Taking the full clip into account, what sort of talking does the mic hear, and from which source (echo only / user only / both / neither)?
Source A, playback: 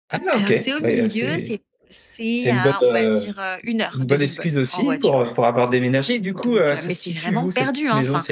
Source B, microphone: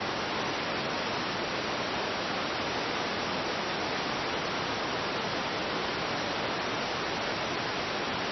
neither